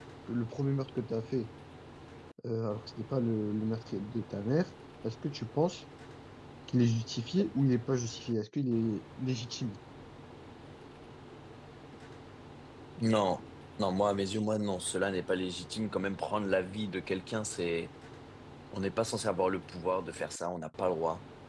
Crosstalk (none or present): none